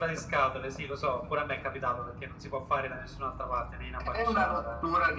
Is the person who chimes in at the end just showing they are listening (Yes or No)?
No